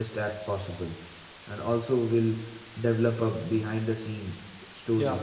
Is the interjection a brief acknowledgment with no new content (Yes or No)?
No